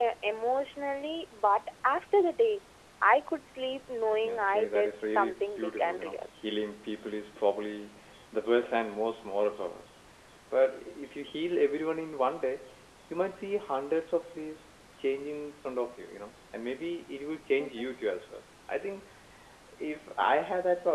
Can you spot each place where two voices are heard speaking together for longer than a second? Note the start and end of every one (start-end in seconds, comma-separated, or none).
4.2-6.2